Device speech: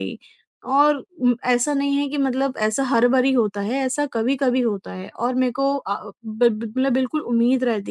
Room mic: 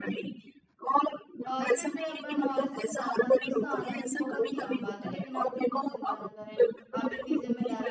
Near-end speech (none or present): present